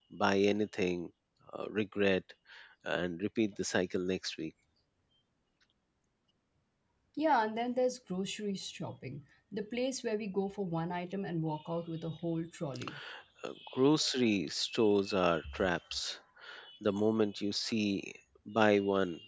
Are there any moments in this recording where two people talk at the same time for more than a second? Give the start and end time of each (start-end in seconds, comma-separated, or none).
none